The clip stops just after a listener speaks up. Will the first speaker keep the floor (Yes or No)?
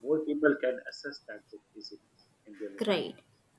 No